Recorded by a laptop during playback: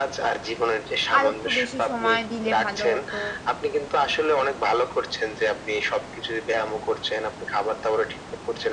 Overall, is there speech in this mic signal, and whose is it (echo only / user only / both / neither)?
both